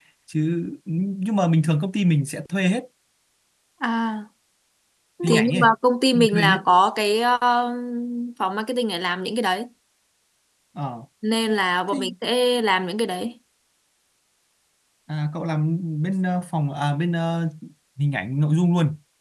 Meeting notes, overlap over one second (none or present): none